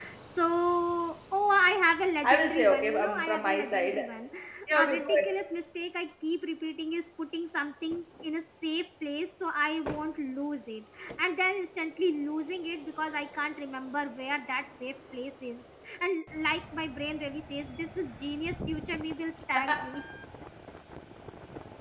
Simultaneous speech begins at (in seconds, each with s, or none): 2.2 s